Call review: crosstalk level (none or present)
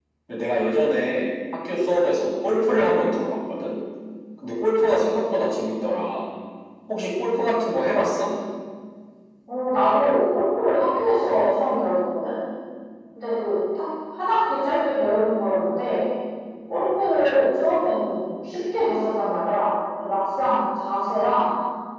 none